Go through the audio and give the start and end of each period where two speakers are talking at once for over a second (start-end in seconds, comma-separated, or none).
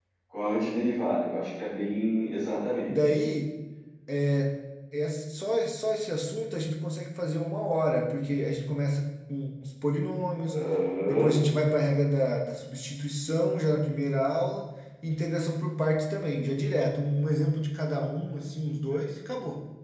none